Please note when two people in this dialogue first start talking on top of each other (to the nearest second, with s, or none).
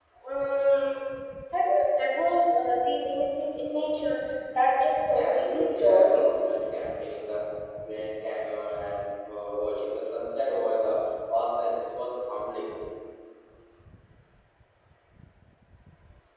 5 s